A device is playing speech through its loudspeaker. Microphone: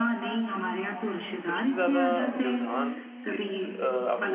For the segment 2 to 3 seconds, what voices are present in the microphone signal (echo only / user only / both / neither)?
both